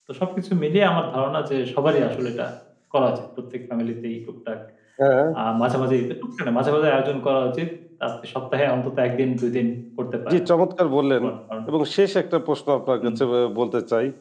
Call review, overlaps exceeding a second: none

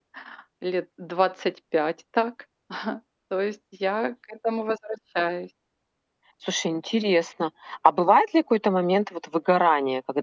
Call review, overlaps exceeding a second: none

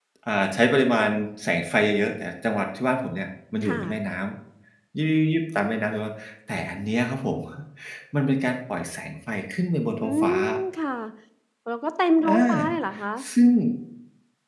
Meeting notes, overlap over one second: none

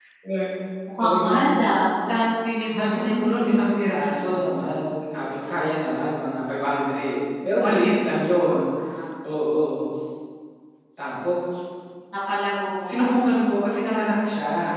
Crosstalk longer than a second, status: none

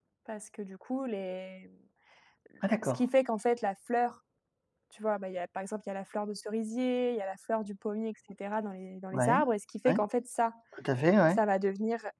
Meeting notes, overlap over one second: none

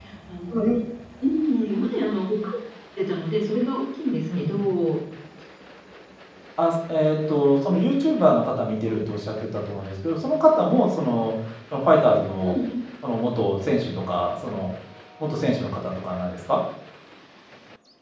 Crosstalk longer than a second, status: none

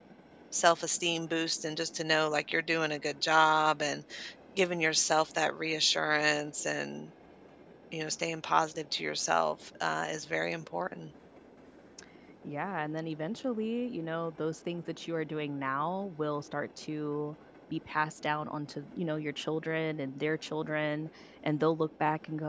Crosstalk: none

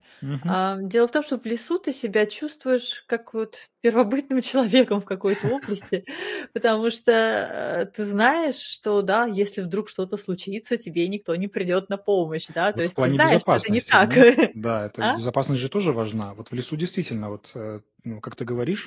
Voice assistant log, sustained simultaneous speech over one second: present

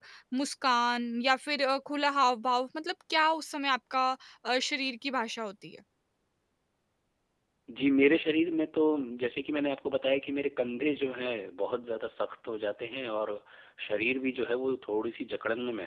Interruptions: none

